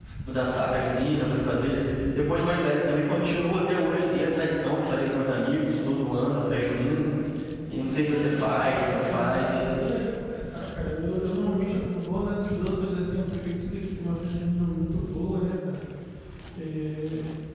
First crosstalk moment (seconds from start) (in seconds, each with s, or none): 8.1 s